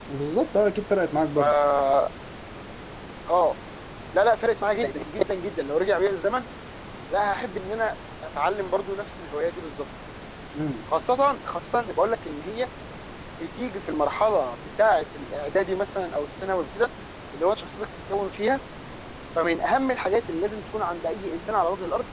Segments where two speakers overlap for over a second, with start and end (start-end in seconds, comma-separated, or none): none